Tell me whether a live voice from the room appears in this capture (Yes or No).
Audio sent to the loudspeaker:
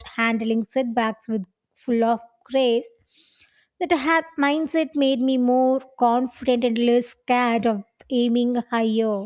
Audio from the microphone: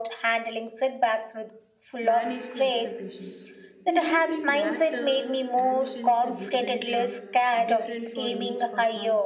Yes